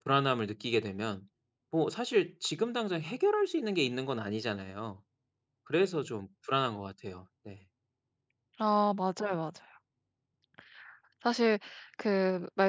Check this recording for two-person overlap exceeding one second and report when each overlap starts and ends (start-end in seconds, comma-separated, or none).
none